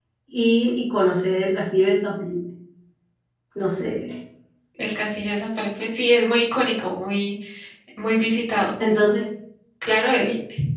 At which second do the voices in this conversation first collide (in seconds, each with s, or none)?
none